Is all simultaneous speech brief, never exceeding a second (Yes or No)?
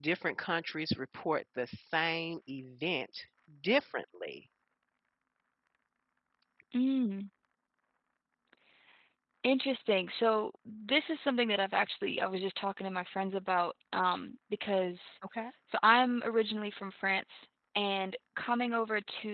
Yes